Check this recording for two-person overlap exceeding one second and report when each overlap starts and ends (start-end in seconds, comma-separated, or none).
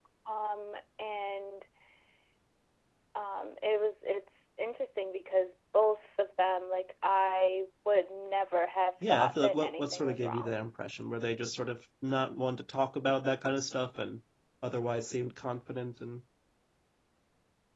9.0-10.6